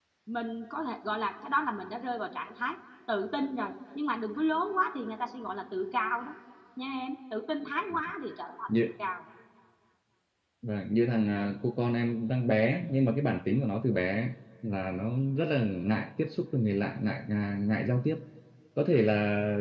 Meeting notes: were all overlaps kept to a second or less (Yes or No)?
Yes